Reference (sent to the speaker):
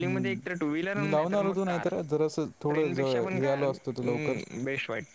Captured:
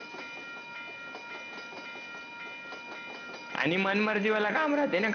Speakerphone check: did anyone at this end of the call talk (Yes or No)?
Yes